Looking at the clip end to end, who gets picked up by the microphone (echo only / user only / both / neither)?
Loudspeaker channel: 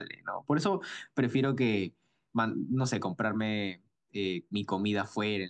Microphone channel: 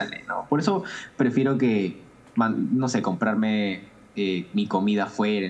echo only